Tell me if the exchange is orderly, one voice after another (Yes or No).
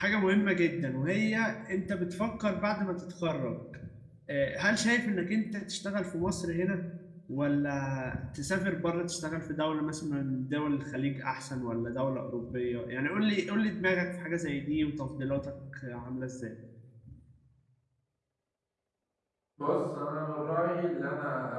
Yes